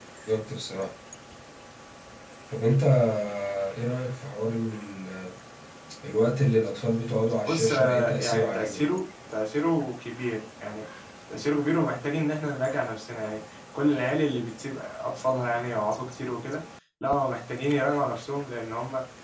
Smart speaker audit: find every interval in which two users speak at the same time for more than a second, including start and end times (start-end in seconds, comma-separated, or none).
7.5-8.8